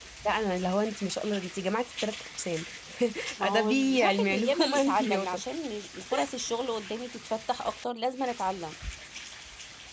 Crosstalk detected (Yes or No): Yes